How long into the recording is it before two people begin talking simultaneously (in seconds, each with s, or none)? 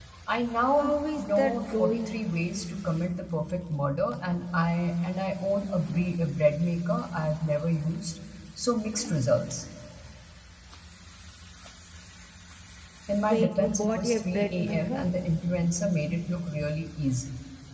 0.7 s